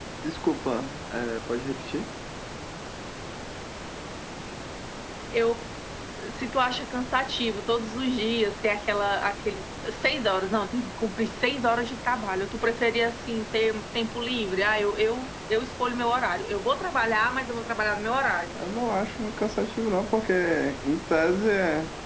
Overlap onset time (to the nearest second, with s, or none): none